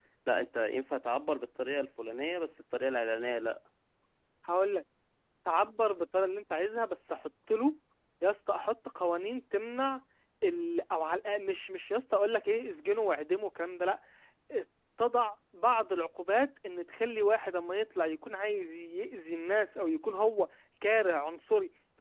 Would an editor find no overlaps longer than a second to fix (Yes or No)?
Yes